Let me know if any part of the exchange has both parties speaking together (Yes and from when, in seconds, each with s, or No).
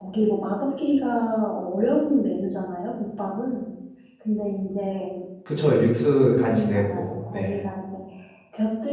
Yes, from 6.3 s